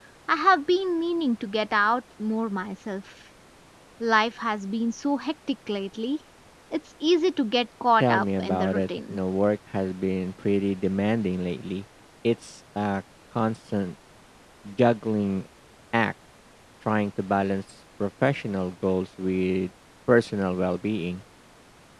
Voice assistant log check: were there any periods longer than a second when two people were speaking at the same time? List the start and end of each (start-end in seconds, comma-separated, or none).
8.0-9.2